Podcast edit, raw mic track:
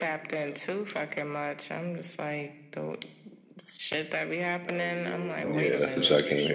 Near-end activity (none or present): present